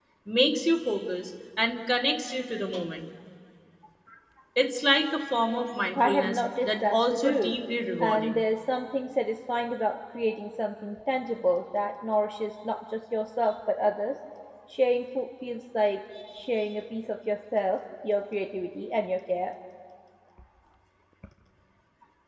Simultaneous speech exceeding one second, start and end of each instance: 6.0-7.6

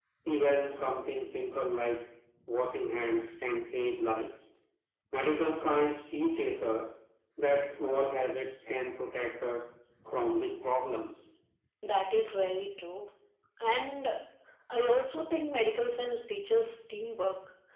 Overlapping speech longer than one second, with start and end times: none

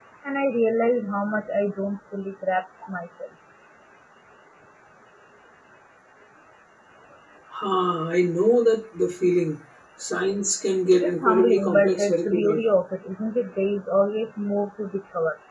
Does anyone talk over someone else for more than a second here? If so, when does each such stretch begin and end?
11.0-12.6

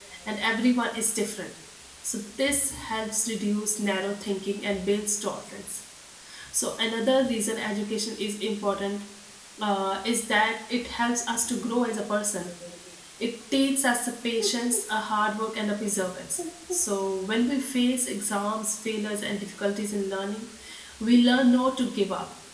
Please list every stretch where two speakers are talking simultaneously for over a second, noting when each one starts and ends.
none

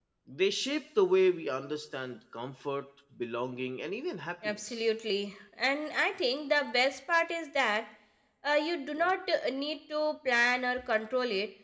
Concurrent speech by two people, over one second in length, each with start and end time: none

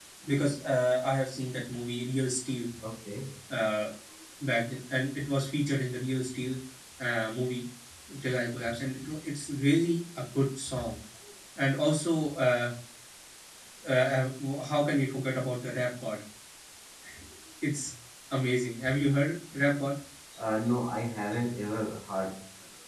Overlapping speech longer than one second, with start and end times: none

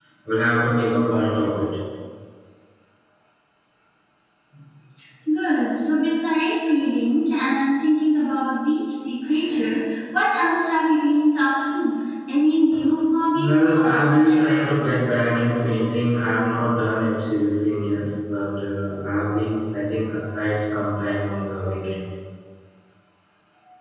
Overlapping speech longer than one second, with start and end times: 13.4-14.6

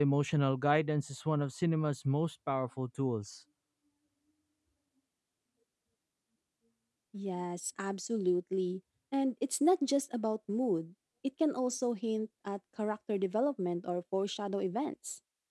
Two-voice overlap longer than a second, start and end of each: none

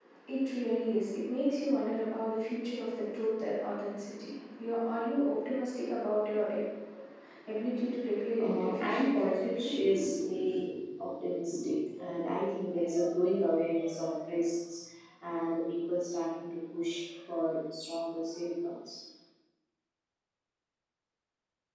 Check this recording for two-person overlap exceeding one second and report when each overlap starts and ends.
8.4-9.8

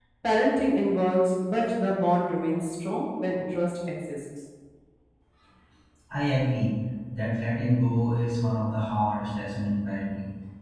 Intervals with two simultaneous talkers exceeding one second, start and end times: none

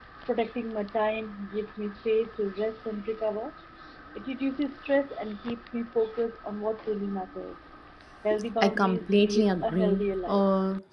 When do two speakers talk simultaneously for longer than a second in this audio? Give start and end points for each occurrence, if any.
8.6-10.4

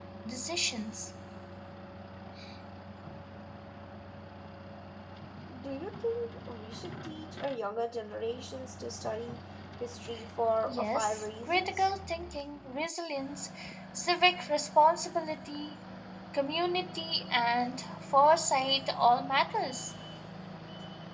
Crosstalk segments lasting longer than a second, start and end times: 10.7-11.9

